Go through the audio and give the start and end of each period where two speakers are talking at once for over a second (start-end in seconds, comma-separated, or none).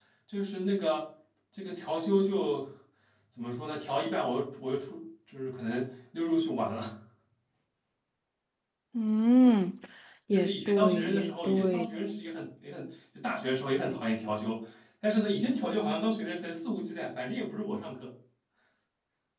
10.3-11.9